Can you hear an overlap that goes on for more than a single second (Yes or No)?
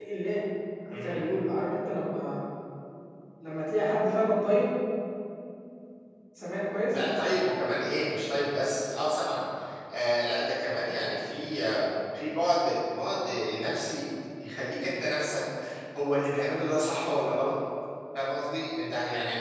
No